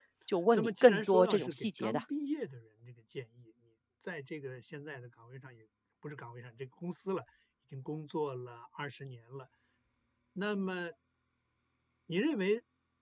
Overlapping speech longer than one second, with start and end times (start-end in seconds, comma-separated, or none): 0.5-2.0